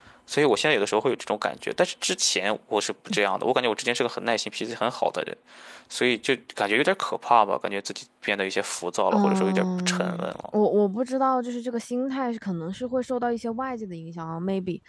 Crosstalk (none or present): present